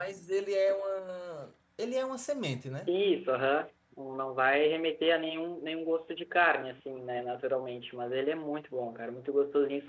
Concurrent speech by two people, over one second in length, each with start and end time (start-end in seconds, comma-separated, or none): none